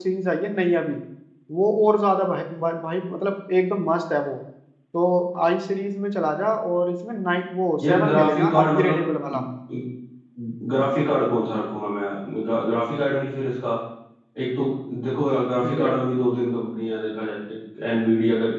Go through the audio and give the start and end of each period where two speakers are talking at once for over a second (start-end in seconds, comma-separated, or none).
7.8-9.1